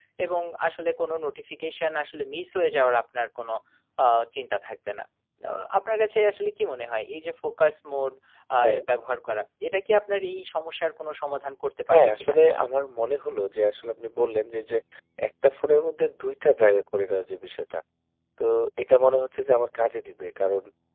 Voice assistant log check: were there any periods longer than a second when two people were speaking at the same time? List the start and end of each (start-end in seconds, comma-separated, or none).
none